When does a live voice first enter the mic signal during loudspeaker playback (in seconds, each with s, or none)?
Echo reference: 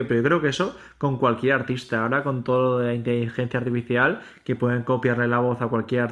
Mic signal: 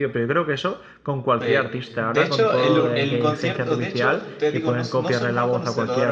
1.4 s